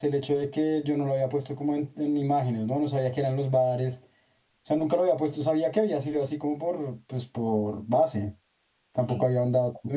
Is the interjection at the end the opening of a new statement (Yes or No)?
No